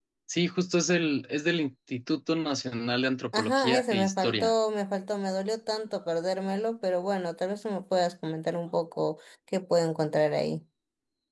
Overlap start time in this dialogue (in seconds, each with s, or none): 3.3 s